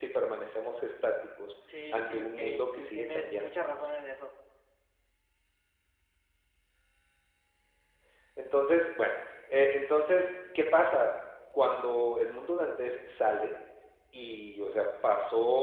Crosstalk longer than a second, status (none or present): present